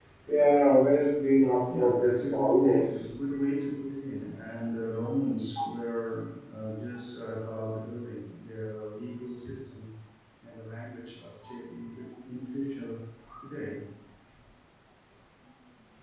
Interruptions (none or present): present